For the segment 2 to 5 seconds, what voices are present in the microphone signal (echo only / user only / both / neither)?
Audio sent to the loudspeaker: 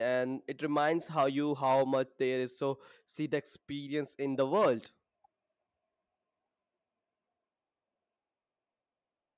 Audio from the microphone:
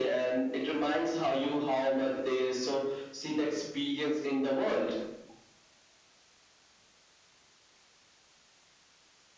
echo only